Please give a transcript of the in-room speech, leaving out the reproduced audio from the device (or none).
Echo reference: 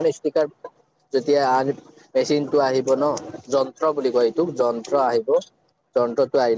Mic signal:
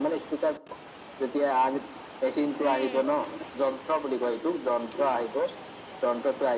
উম,